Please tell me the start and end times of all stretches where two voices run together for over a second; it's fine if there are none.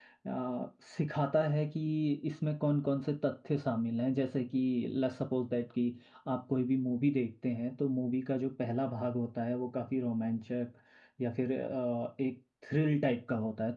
none

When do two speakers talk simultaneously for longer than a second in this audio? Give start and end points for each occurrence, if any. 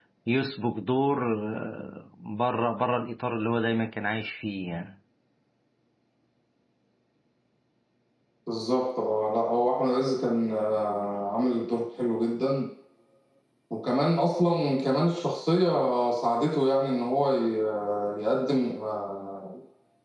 none

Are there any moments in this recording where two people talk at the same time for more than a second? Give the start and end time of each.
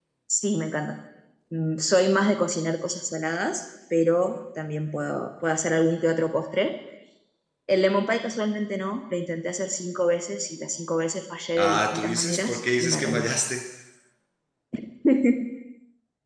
11.6-13.3

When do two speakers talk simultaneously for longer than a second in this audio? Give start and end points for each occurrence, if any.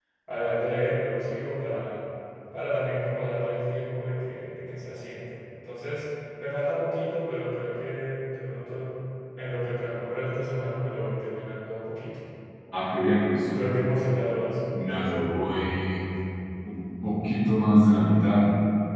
none

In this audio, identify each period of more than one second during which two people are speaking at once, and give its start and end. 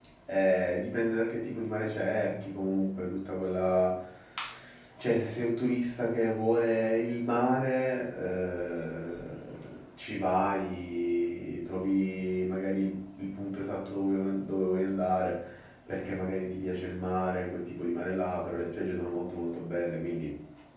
none

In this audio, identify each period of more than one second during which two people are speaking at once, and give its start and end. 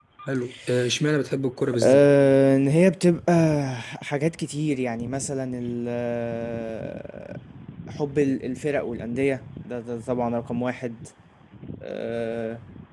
none

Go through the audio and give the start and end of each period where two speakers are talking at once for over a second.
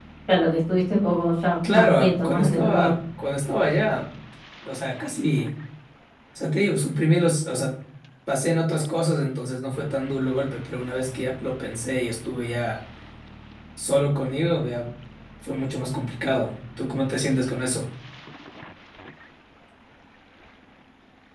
1.7-2.9

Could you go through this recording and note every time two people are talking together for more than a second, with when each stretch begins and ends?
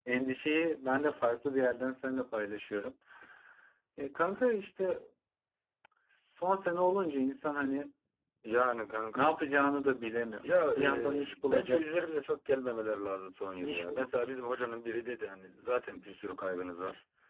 10.4-11.8

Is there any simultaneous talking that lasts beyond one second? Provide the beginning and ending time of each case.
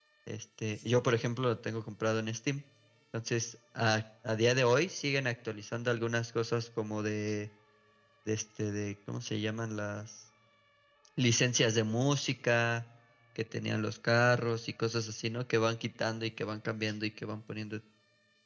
none

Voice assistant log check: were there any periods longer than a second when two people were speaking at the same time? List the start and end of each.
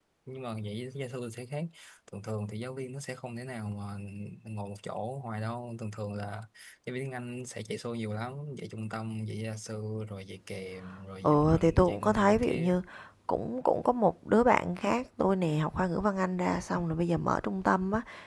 11.2-12.8

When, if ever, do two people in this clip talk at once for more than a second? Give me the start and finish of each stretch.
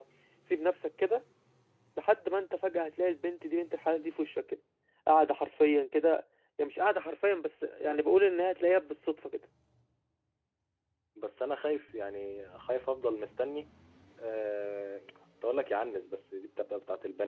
none

